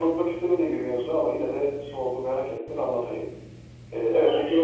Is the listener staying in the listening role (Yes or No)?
Yes